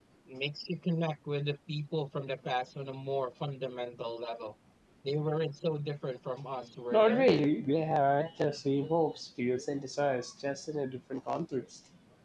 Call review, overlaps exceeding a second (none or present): none